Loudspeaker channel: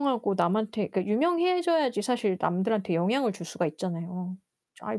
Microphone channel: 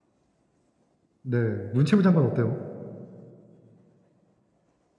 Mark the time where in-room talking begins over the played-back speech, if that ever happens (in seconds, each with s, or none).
1.2 s